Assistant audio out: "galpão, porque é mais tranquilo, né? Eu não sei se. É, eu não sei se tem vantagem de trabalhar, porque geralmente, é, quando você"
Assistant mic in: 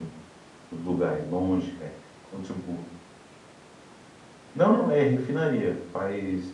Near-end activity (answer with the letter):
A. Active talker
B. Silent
A